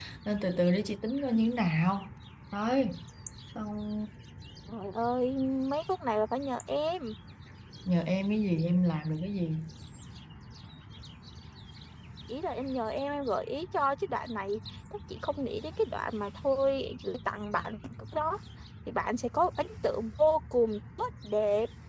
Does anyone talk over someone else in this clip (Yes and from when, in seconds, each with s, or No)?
No